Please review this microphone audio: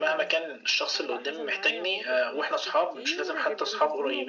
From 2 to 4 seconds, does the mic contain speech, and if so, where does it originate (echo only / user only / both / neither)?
both